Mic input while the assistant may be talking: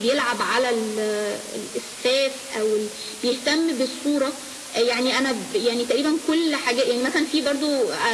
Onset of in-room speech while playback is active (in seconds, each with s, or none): none